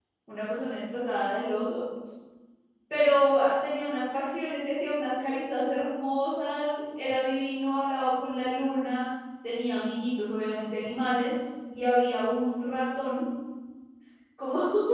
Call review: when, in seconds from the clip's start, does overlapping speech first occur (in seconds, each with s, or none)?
none